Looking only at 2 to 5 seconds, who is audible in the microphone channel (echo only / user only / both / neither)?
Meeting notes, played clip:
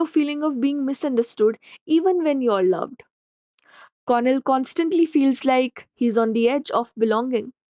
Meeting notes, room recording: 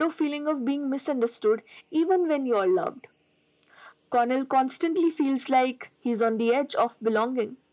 echo only